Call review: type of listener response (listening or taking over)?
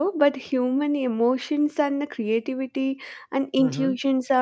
listening